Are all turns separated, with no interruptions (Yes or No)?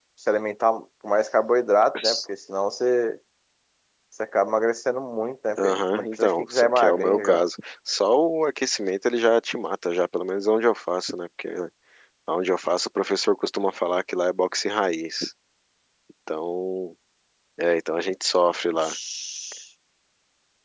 No